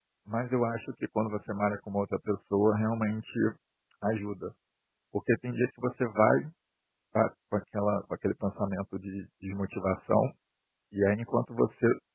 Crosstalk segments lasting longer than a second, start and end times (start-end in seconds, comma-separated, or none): none